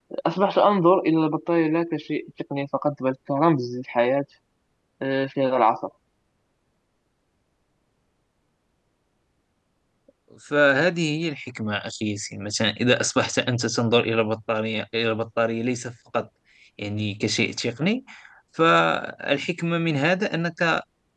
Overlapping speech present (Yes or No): No